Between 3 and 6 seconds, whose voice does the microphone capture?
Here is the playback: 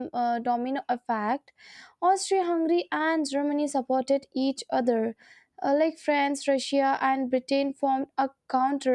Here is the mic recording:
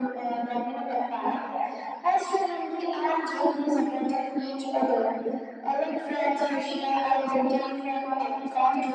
echo only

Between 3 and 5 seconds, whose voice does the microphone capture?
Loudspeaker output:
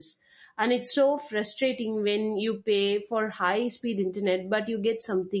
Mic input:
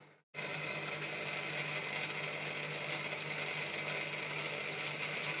neither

